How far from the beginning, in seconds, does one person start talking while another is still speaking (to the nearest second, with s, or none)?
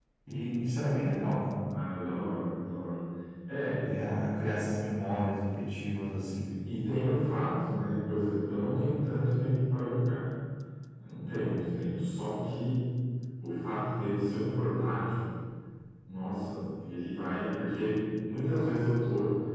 none